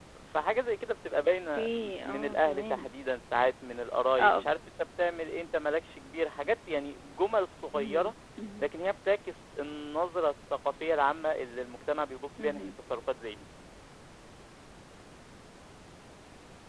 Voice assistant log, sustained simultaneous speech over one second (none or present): present